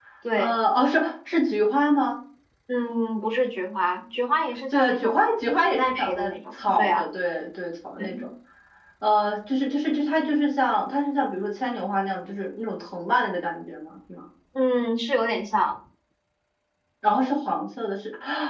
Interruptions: present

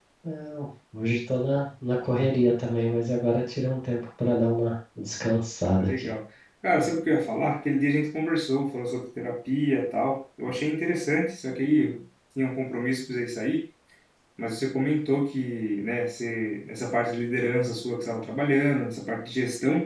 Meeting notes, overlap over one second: none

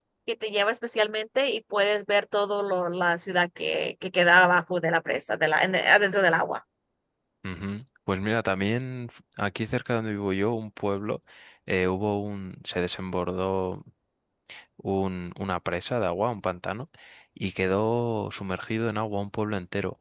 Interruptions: none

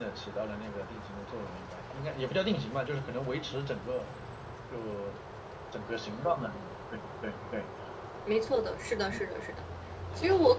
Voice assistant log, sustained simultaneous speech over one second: none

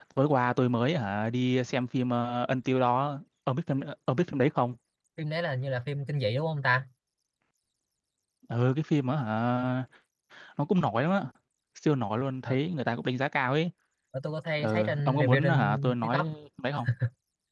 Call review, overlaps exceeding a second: present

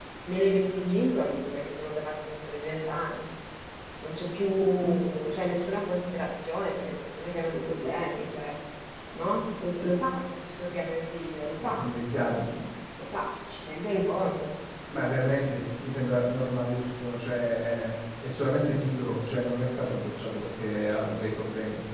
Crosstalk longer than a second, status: none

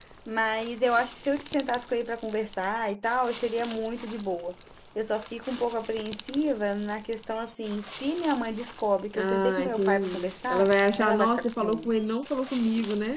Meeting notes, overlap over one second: present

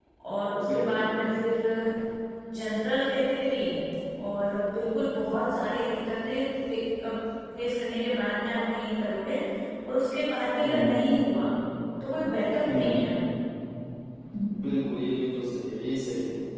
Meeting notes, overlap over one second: none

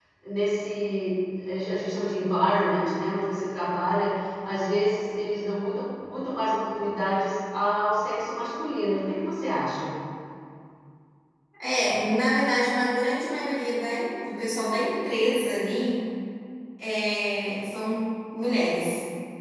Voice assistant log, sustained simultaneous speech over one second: none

